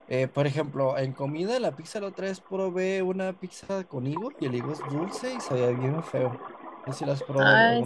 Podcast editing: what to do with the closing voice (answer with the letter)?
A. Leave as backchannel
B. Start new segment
B